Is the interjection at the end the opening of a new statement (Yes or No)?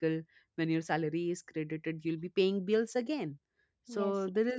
No